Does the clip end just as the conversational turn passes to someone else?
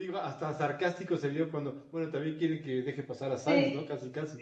Yes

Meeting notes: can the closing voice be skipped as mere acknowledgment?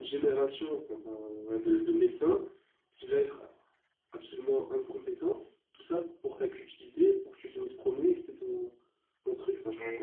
No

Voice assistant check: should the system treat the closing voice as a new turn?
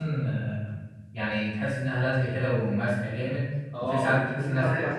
Yes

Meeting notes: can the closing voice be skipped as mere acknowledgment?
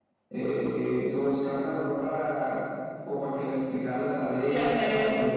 Yes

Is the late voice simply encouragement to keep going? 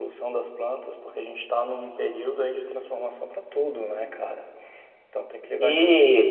No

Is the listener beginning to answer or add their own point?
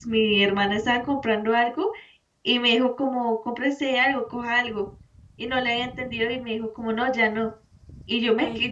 No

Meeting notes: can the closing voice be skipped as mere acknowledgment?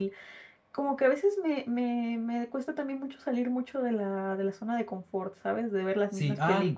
No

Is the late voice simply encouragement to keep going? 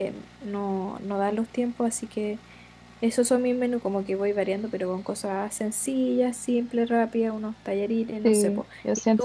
No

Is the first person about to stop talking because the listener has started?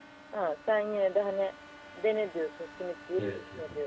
Yes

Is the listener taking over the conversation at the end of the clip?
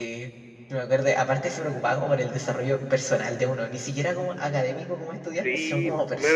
Yes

